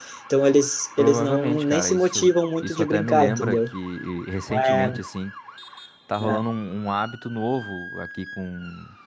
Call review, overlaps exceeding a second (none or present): present